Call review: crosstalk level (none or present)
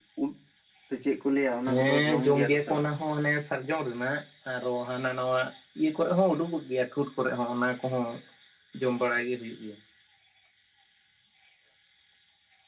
present